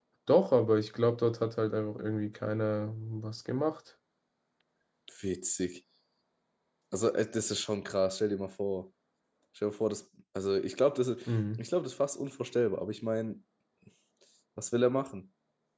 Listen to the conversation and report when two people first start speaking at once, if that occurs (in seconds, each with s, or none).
none